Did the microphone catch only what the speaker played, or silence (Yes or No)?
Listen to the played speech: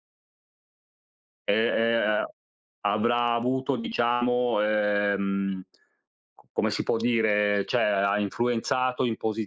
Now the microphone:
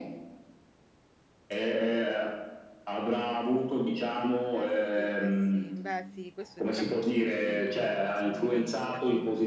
No